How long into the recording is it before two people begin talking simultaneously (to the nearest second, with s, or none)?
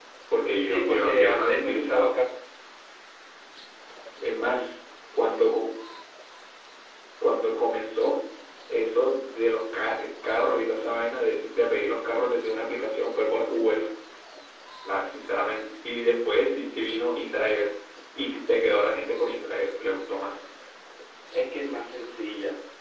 1 s